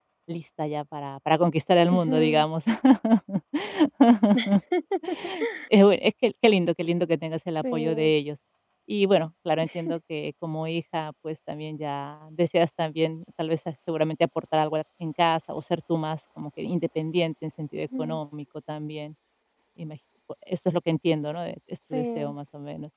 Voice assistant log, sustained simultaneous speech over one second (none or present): none